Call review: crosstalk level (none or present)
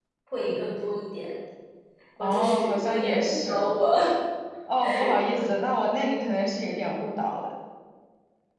present